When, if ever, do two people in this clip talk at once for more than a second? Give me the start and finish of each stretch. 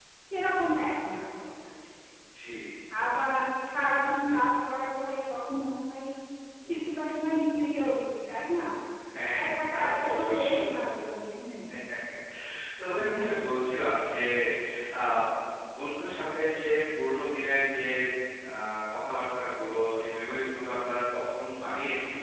9.2-10.7

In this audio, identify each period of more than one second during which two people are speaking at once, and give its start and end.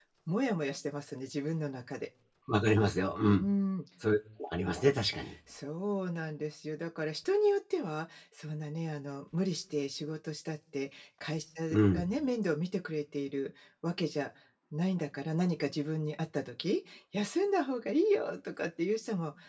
none

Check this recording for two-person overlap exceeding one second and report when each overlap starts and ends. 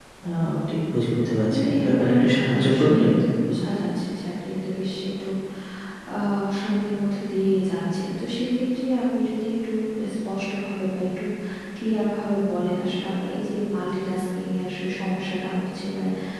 1.5-3.1

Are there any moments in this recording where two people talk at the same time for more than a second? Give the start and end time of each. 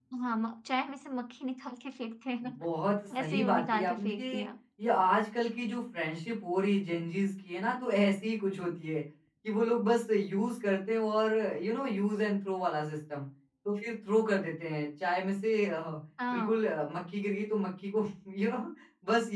3.2-4.4

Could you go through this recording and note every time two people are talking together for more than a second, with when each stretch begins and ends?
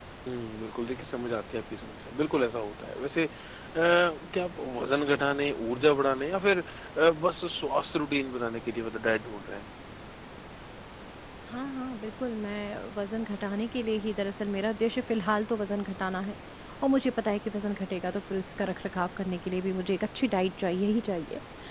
none

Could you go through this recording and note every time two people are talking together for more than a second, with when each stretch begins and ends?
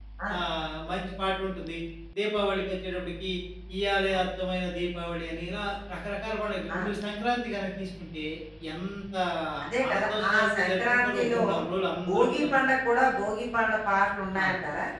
9.9-11.4

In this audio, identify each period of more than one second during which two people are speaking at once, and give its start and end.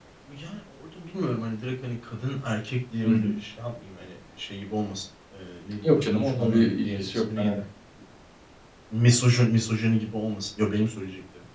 6.0-7.6

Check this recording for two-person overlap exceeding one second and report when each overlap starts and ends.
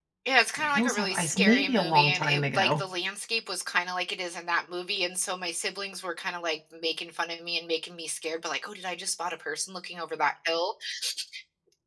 0.6-2.8

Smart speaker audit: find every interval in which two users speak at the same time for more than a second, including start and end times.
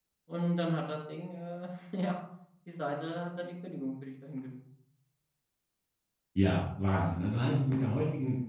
none

